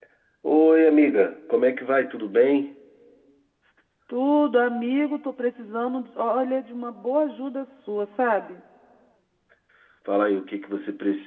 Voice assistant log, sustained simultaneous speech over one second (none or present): none